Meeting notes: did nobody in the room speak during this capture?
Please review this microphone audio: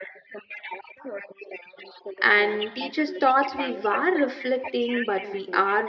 No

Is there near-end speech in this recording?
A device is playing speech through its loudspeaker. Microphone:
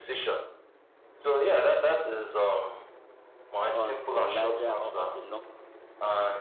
Yes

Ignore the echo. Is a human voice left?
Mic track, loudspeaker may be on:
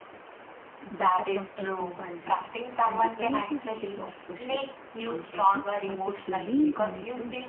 Yes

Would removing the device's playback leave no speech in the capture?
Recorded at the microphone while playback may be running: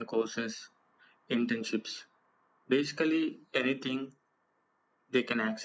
Yes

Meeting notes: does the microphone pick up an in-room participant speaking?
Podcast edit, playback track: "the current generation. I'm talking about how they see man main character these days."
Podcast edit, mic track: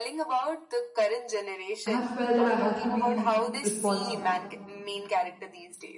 Yes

